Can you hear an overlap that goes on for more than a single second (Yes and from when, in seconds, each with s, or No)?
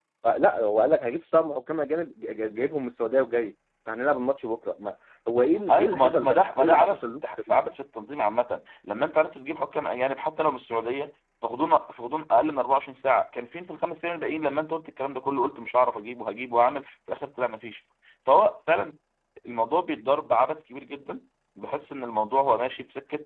Yes, from 5.4 s